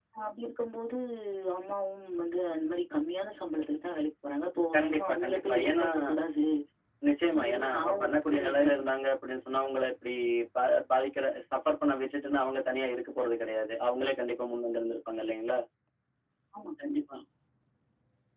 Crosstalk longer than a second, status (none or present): present